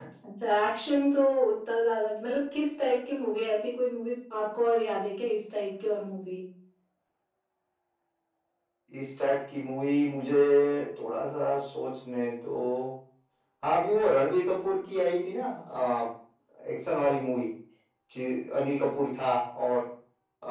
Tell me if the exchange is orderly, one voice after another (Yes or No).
Yes